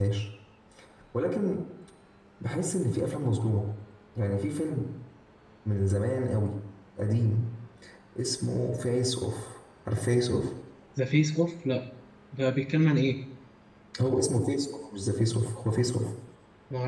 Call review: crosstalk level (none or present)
none